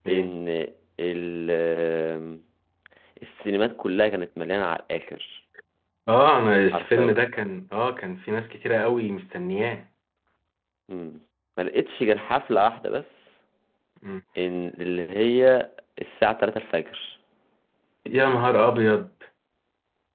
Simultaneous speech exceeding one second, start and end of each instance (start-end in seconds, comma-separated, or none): none